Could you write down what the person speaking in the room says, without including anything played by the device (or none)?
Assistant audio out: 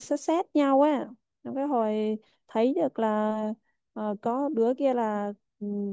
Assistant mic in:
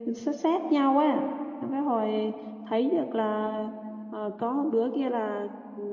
none